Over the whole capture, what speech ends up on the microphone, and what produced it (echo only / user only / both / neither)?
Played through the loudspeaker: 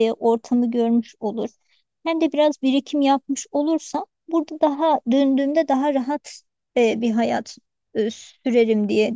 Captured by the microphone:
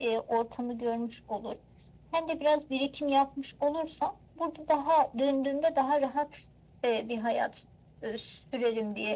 echo only